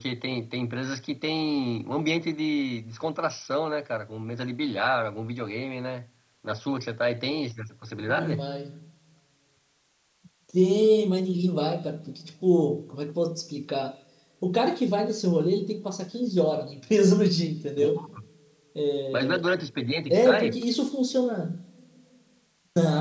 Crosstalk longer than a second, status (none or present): none